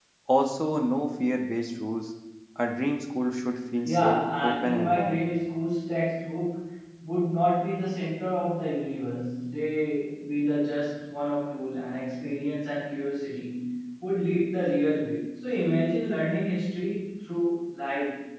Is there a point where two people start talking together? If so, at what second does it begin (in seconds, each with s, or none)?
3.8 s